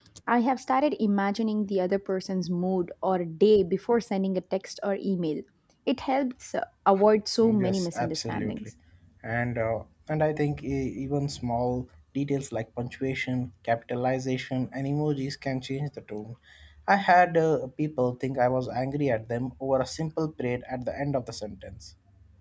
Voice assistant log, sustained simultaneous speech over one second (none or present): present